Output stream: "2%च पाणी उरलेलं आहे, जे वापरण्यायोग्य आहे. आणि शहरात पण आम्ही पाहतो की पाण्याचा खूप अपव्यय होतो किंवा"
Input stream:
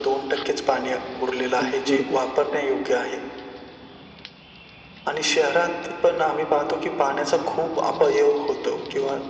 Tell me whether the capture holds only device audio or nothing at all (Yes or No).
No